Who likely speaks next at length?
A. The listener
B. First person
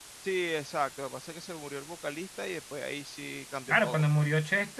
A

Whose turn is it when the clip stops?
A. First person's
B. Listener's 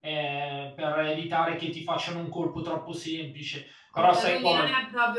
B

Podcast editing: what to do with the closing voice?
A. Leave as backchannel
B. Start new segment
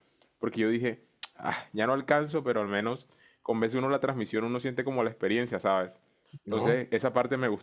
A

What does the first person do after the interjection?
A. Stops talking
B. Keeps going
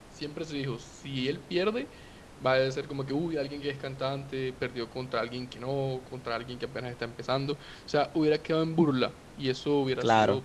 B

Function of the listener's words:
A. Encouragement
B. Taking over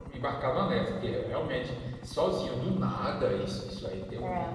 A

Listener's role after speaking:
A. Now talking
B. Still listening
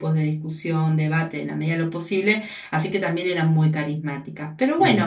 B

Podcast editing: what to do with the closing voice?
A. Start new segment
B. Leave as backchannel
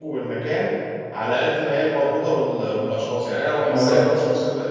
B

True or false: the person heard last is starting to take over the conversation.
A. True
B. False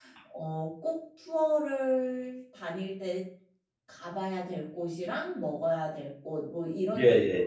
B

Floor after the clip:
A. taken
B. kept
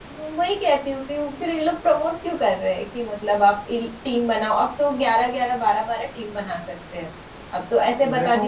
B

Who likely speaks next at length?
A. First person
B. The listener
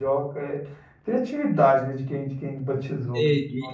B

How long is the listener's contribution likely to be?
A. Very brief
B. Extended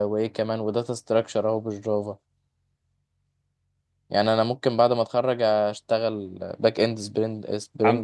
B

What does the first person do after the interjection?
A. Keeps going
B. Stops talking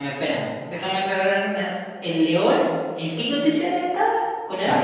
B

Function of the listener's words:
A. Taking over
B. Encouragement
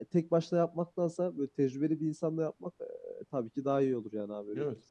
A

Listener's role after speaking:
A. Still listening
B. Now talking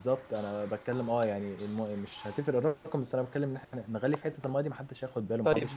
B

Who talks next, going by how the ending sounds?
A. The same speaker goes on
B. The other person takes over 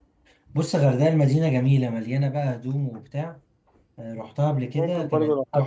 B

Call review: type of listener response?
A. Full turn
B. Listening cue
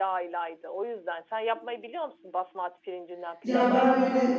A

